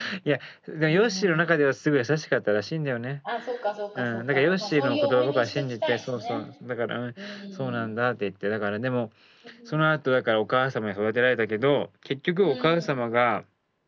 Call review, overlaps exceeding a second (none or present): present